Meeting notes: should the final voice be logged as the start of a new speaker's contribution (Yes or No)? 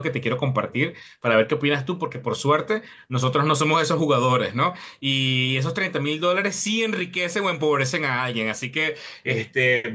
No